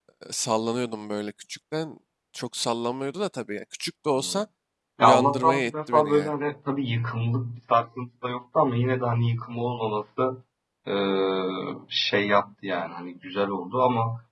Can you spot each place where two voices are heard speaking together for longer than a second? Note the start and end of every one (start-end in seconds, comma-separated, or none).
5.0-6.3